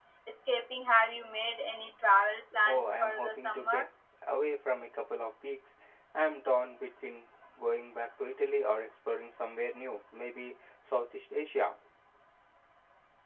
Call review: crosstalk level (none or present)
present